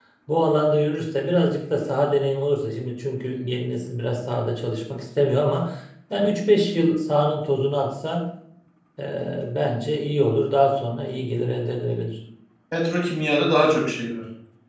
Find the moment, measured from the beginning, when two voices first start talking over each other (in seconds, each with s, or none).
none